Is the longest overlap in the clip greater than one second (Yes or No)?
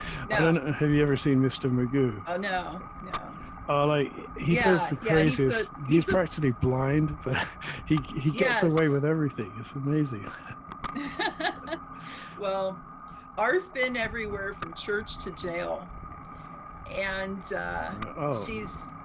Yes